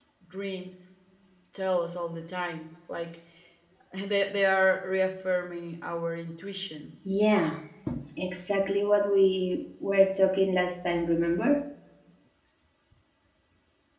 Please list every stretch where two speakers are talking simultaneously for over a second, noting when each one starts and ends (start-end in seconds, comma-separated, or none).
none